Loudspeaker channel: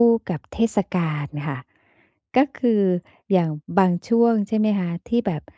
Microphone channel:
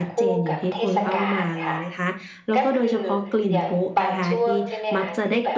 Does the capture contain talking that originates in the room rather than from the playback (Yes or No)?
Yes